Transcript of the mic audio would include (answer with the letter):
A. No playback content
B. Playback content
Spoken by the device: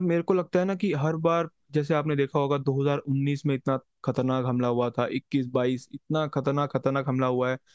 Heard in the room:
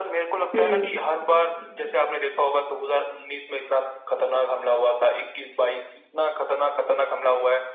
B